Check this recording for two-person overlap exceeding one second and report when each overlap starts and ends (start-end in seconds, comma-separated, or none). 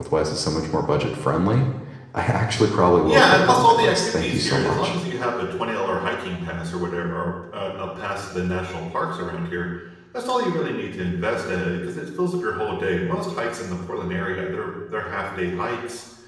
3.0-4.9